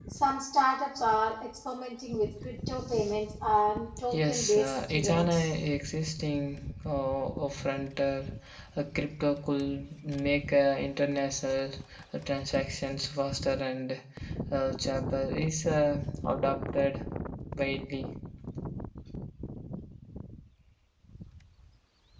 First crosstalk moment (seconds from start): 4 s

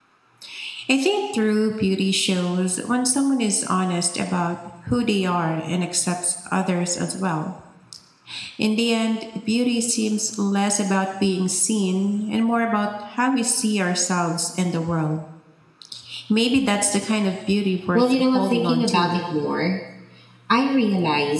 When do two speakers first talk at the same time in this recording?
18 s

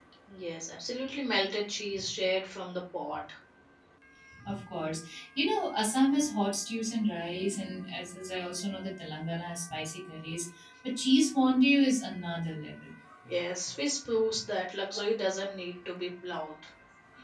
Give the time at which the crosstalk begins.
none

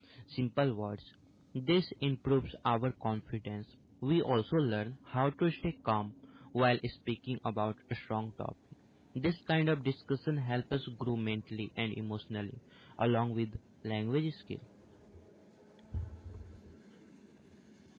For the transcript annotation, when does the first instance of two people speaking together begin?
none

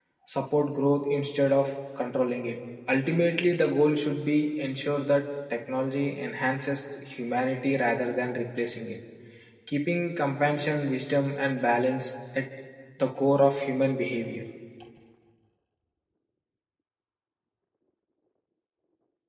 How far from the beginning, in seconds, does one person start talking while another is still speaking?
none

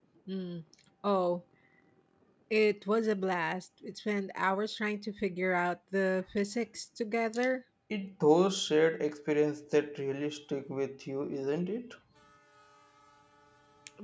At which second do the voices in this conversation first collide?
none

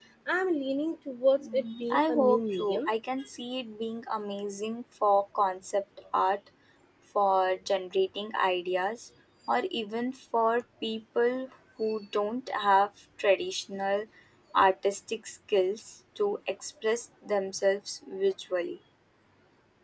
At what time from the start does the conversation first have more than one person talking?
1 s

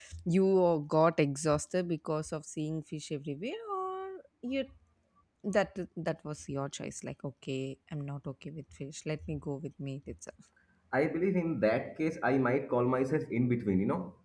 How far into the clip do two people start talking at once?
none

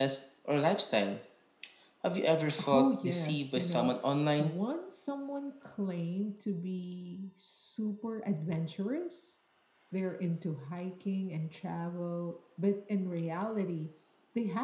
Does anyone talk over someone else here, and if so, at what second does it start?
3 s

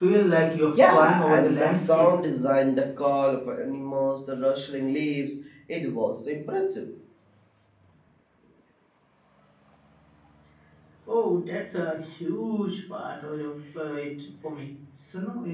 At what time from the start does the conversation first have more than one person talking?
1 s

